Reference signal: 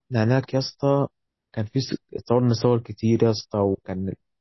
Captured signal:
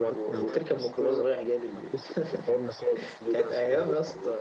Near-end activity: present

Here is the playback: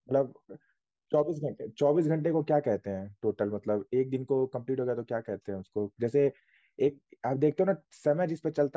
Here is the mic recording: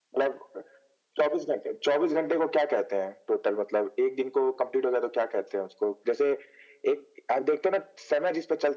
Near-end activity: none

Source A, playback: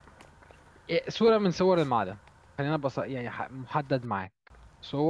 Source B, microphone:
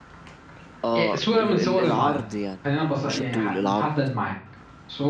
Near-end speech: present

